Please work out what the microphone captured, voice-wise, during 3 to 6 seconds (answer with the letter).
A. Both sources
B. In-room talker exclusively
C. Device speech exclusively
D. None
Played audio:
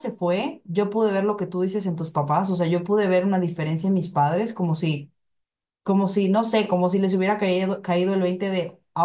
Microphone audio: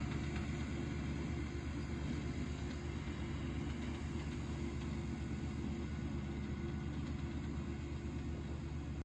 D